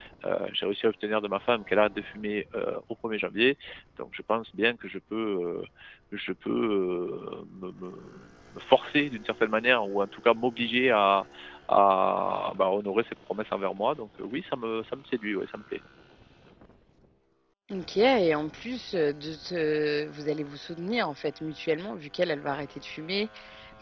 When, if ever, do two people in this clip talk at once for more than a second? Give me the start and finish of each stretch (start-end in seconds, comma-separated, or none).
none